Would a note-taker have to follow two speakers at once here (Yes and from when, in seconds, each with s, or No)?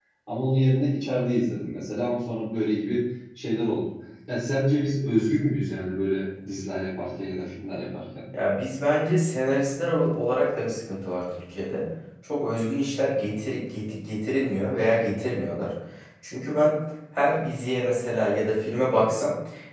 No